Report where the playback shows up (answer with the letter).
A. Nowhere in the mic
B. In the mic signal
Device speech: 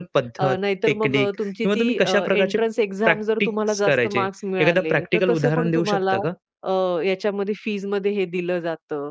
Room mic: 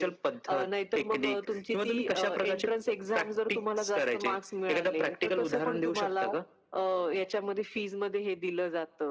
B